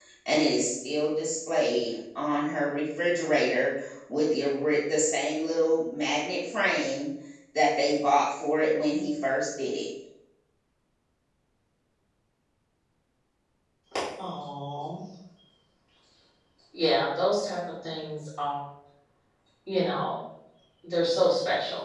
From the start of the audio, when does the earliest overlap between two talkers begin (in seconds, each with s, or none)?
none